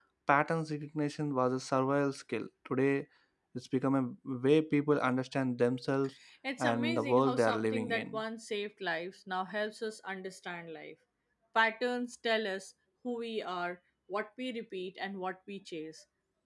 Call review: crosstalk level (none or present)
present